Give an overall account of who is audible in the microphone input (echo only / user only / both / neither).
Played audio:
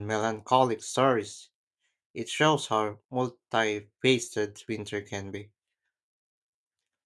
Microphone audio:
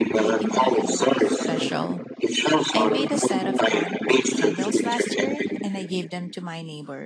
both